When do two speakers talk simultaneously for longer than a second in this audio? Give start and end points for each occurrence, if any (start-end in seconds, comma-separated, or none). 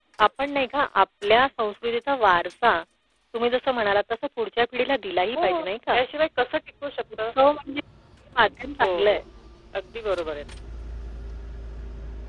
none